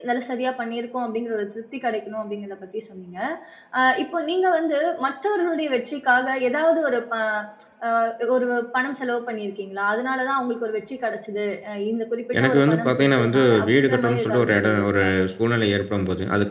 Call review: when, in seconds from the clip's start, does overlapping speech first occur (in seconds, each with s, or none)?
12.3 s